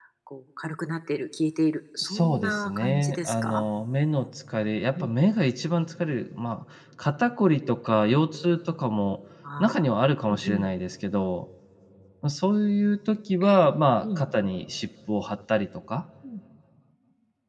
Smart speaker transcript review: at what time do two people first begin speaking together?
2.0 s

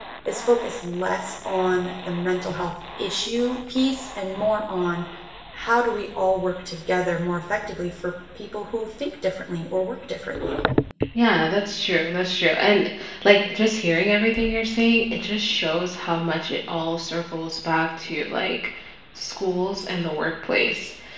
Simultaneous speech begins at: none

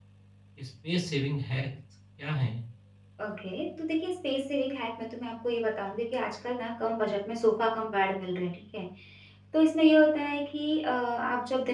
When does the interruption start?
none

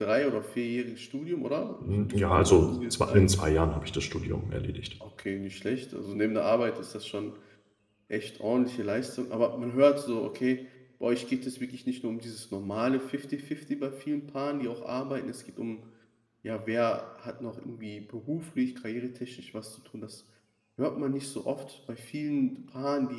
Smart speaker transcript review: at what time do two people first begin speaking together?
1.8 s

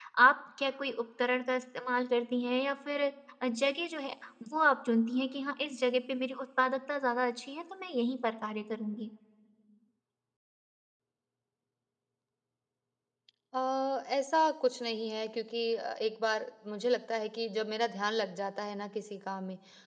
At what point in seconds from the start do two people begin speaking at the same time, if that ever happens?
none

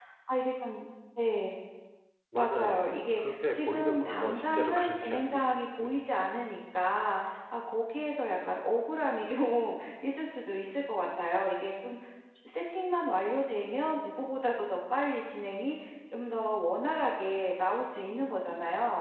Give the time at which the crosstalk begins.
2.3 s

